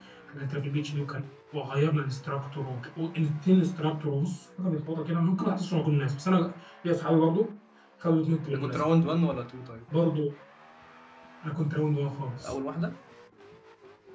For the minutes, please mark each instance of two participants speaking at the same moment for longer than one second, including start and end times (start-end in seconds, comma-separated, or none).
none